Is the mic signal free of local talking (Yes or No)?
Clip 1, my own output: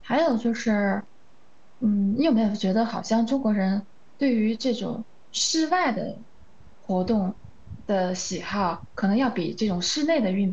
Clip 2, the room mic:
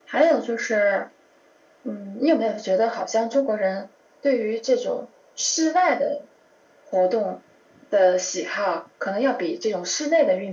Yes